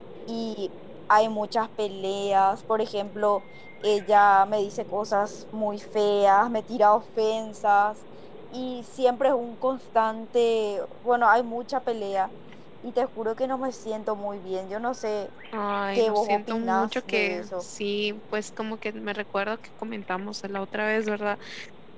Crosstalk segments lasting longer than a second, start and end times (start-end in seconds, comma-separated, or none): 15.9-17.6